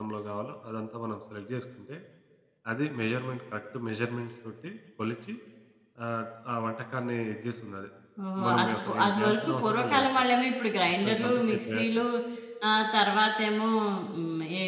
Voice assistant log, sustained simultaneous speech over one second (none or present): present